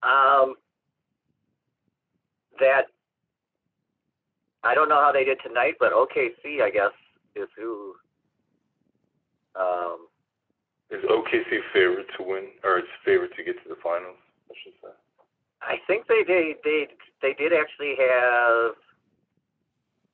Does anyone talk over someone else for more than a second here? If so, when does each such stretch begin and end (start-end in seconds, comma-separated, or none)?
none